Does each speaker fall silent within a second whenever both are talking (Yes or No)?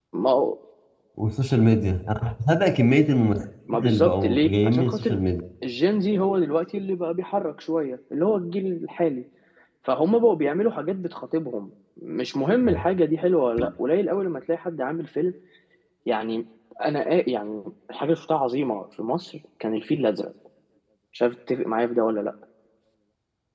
No